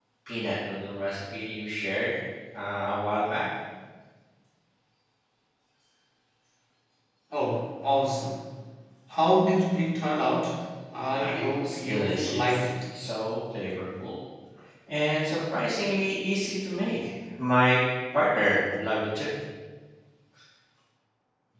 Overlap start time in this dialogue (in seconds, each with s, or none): 11.2 s